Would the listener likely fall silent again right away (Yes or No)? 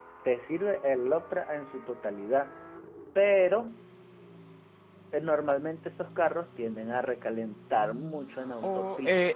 No